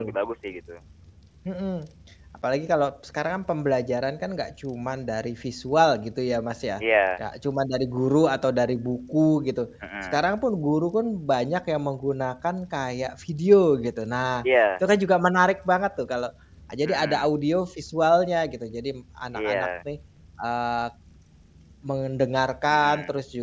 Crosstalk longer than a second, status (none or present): none